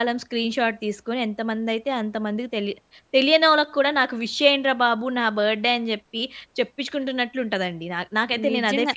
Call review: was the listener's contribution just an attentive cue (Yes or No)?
No